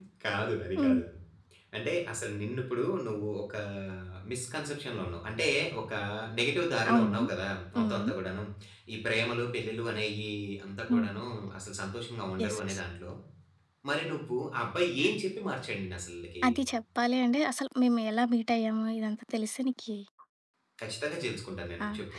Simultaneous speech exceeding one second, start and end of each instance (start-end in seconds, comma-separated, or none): none